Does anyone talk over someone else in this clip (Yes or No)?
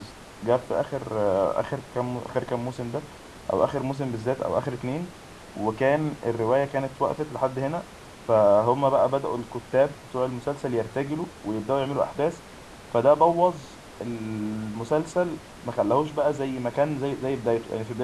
No